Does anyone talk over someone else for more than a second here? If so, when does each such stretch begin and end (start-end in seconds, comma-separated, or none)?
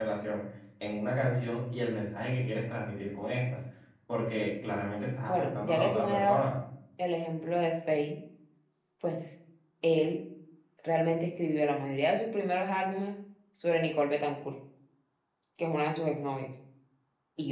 5.3-6.5